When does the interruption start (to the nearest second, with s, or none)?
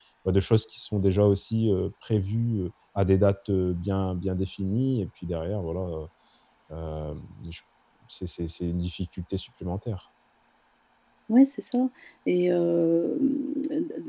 none